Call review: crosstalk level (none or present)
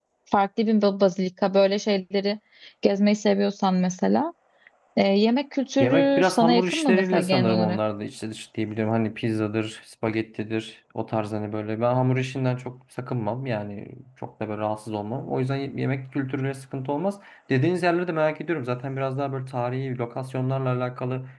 present